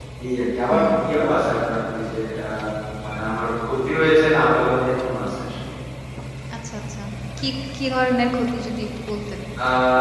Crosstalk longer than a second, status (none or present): none